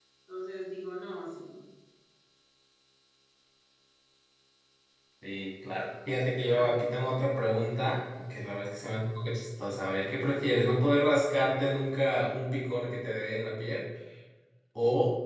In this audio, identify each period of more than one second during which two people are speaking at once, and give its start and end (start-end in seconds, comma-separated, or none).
none